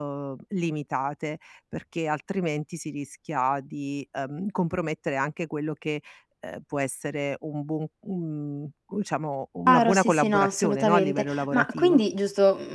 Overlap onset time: 9.7 s

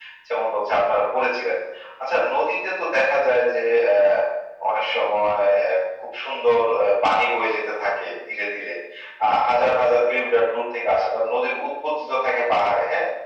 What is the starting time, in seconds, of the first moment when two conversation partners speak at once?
none

